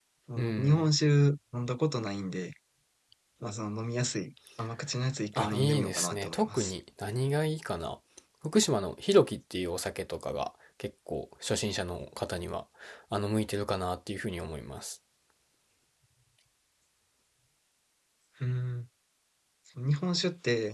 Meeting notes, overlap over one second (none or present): present